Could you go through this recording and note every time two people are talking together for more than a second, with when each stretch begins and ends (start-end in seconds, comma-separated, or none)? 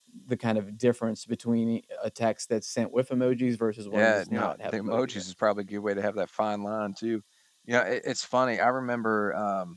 3.9-5.2